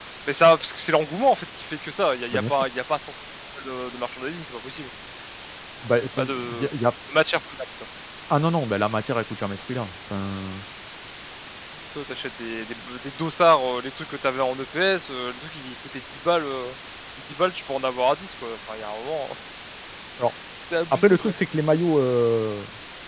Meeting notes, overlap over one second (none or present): none